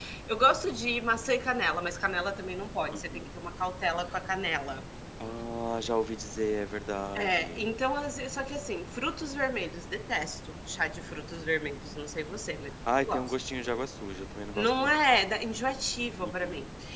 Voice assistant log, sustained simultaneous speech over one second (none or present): none